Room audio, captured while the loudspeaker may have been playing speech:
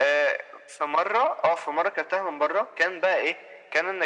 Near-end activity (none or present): none